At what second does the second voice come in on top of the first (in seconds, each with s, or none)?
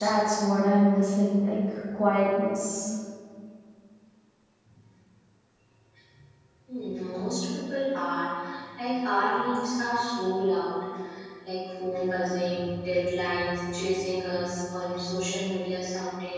none